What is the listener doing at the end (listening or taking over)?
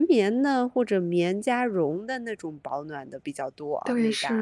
taking over